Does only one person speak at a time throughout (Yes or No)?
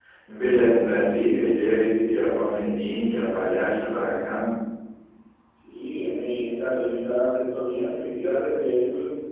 Yes